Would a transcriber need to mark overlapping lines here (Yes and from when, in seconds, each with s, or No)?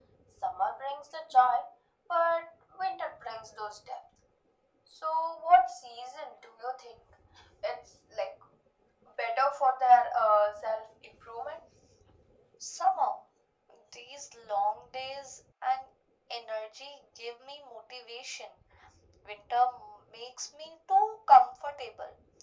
No